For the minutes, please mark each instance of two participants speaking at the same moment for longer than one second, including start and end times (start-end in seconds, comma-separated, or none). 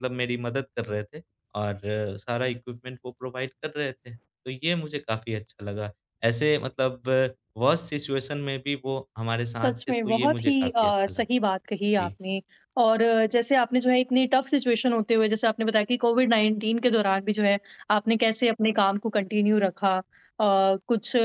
9.5-11.2